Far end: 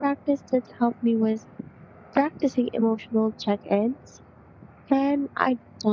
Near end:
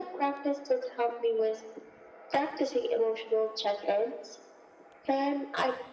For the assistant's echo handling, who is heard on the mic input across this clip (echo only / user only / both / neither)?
echo only